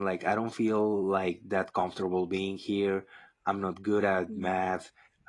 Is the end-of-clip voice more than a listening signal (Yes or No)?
No